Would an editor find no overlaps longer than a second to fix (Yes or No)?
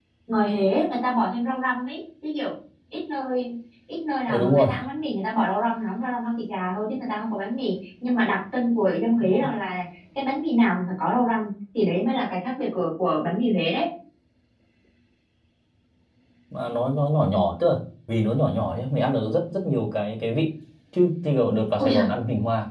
Yes